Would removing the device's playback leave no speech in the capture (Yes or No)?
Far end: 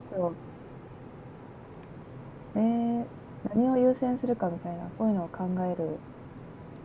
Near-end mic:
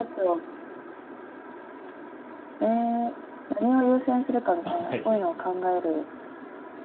No